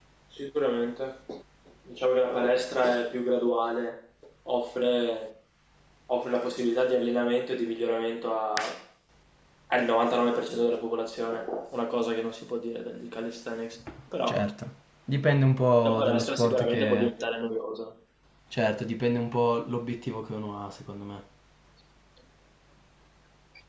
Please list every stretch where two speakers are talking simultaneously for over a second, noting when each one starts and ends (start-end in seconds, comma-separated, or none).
15.8-17.1